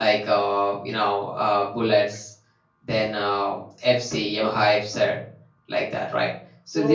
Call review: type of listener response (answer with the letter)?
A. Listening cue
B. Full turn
B